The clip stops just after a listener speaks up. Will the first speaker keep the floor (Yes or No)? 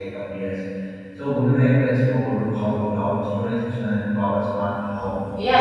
No